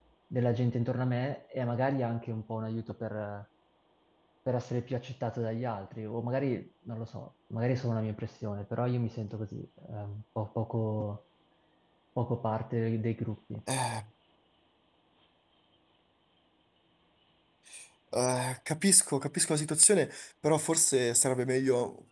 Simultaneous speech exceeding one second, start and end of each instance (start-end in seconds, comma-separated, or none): none